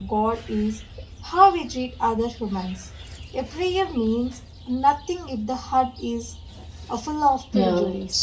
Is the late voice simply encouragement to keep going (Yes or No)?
No